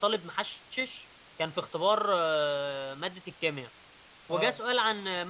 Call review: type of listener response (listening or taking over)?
listening